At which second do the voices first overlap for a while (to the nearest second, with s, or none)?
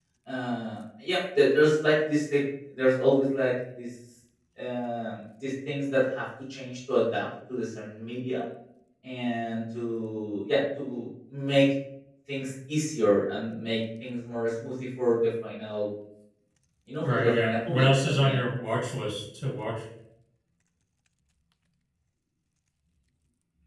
17 s